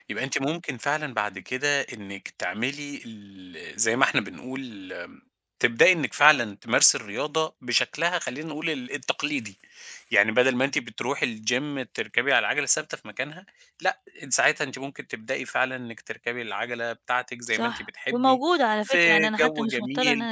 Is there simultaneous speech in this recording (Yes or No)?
Yes